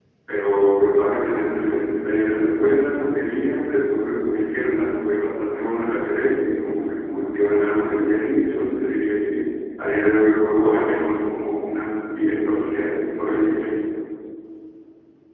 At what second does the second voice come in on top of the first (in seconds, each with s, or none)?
none